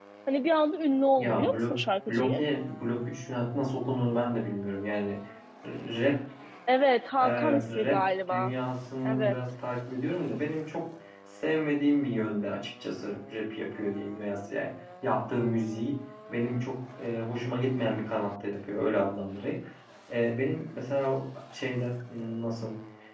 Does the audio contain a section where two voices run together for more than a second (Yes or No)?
Yes